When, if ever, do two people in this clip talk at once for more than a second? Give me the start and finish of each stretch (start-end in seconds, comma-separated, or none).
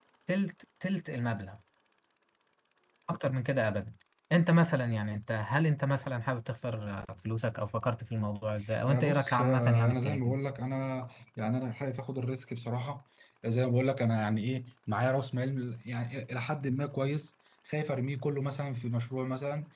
8.8-10.3